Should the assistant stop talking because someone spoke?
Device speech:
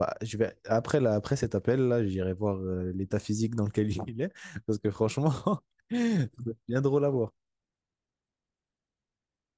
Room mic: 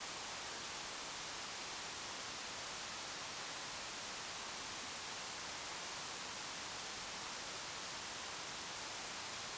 No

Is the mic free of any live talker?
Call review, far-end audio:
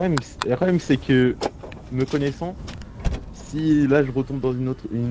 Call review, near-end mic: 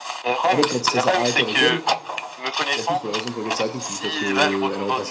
No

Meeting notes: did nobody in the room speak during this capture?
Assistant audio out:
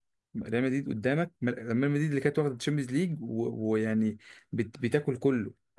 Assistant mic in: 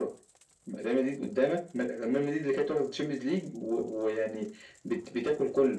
Yes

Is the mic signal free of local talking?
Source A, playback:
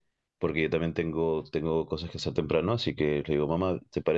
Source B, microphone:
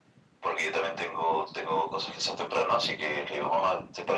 Yes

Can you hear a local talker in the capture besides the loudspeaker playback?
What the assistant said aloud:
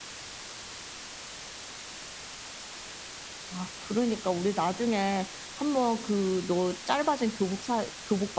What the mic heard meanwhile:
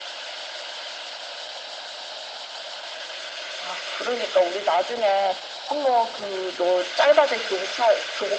No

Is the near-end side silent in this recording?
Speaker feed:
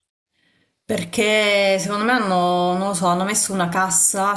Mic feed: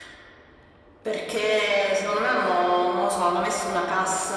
Yes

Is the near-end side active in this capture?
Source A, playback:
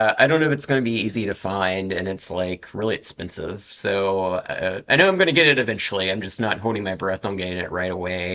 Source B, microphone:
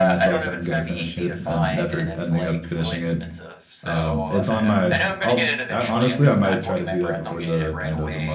Yes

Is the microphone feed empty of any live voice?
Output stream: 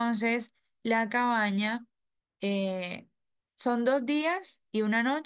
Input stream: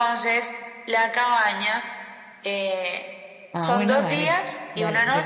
No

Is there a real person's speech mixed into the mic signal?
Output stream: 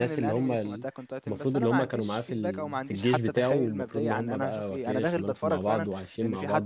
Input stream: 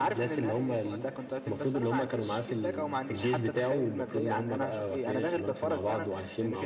No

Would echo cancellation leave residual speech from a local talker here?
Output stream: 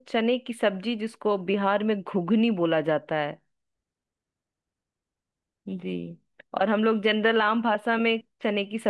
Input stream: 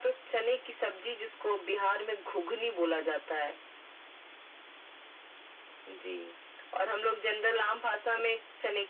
No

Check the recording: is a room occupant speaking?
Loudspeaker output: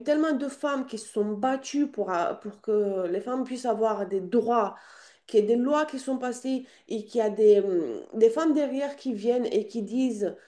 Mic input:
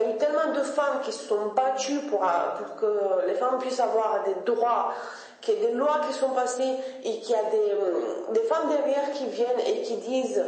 No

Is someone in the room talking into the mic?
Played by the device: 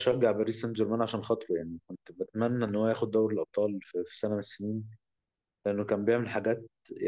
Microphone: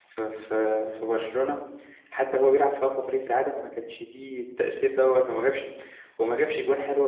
Yes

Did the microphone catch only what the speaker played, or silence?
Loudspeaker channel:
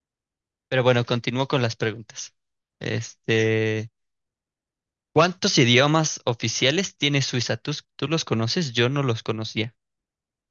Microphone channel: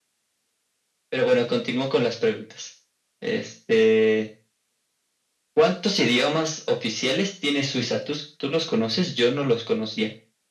Yes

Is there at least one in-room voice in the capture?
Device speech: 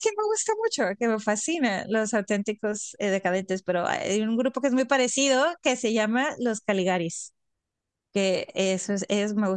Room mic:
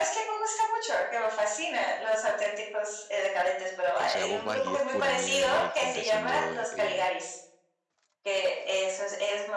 Yes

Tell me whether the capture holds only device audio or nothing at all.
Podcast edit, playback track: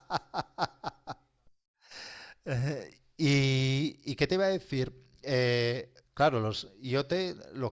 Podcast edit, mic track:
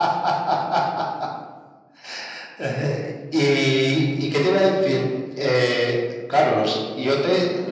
Yes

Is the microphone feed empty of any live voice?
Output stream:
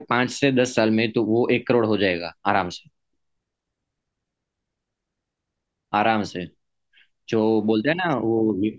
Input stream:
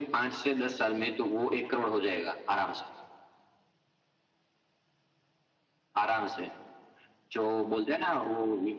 Yes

